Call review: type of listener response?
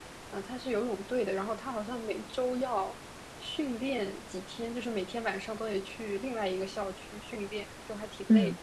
taking over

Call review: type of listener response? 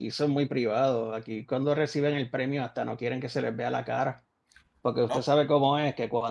listening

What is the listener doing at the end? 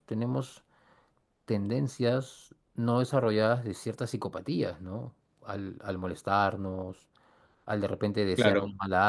listening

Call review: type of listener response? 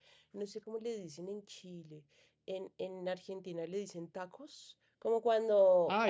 listening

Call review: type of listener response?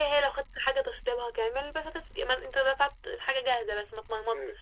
taking over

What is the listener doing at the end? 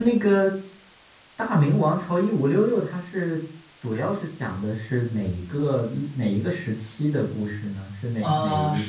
taking over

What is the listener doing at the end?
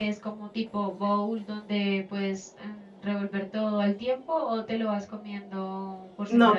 taking over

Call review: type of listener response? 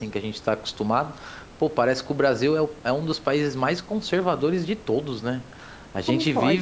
listening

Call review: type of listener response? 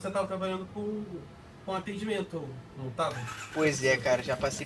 taking over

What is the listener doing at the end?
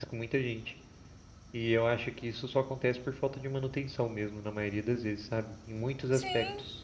taking over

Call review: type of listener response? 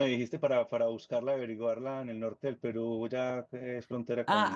taking over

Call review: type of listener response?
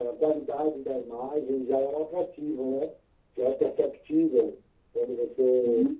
listening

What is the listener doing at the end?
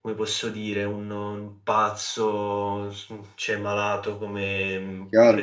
taking over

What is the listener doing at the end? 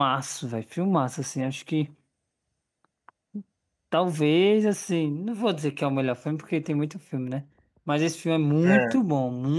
listening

